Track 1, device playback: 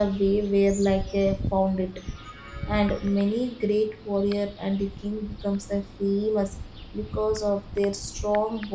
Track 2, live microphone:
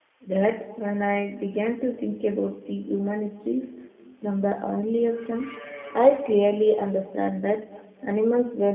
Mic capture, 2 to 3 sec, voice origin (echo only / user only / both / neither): user only